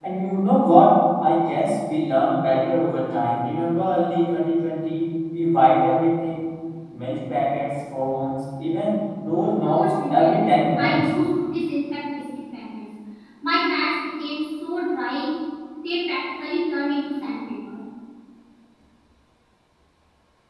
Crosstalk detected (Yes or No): Yes